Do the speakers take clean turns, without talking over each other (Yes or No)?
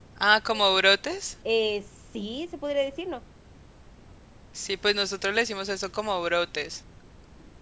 Yes